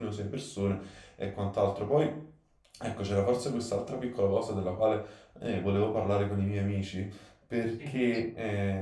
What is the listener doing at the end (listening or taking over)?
listening